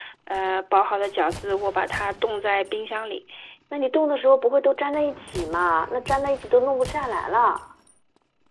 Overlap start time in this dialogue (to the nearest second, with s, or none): none